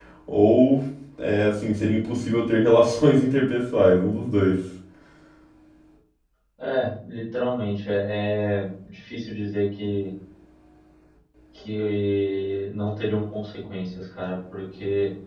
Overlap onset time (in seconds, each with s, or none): none